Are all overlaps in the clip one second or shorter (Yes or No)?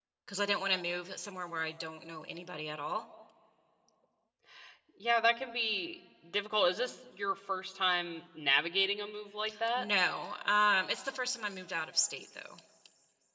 Yes